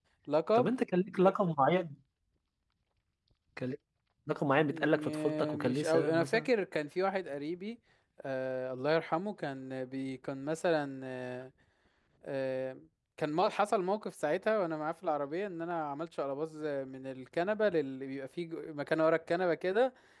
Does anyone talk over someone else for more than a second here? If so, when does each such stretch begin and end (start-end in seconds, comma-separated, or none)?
4.7-6.5